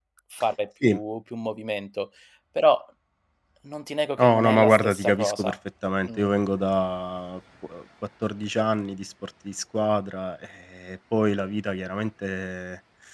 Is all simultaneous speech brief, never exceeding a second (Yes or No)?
No